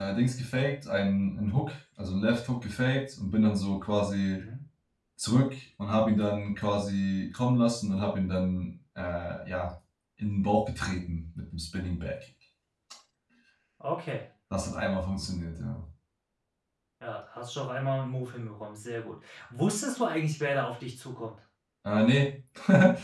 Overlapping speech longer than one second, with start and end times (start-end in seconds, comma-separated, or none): none